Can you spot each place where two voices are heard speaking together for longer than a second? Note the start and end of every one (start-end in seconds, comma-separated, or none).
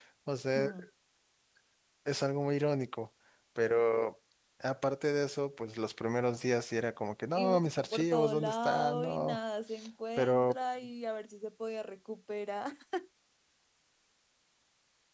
7.3-9.4